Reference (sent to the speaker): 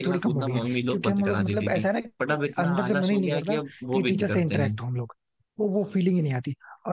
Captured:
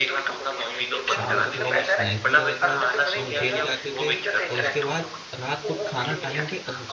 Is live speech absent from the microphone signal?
No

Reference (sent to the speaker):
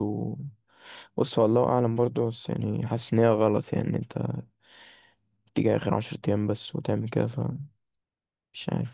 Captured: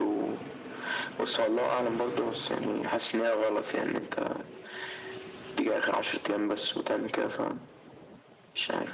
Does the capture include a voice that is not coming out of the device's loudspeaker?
No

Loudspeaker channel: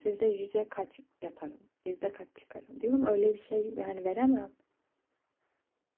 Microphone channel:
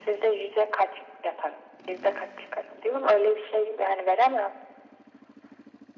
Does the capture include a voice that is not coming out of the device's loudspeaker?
No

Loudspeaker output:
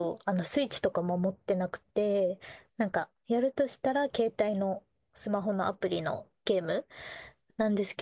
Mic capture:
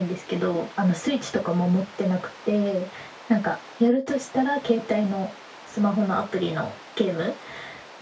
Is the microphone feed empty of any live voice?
Yes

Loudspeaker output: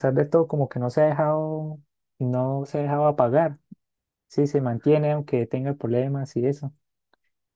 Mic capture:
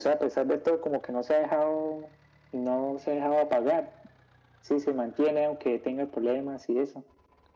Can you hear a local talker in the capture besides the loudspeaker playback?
No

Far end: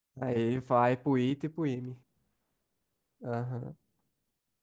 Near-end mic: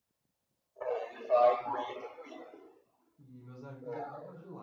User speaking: Yes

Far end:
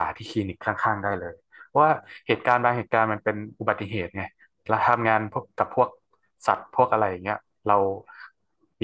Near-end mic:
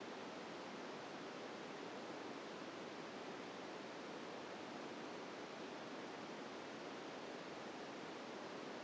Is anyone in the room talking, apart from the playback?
No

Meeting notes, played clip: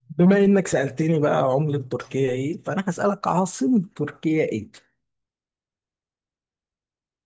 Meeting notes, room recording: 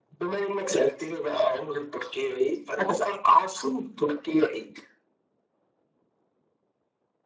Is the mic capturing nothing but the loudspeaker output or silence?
Yes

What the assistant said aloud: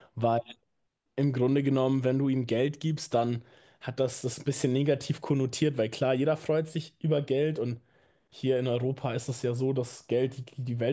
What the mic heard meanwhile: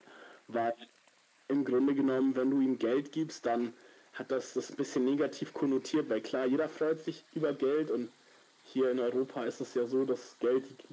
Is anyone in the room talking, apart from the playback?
No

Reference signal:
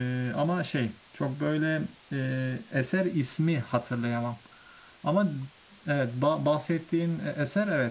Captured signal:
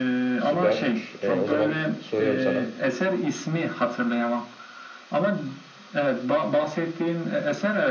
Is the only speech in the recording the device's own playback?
No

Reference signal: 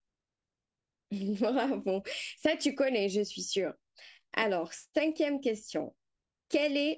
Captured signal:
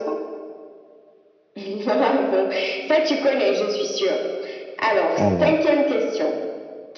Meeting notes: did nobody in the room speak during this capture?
No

